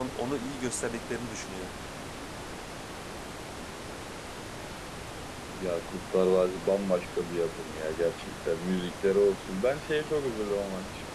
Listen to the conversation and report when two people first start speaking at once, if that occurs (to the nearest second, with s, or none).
none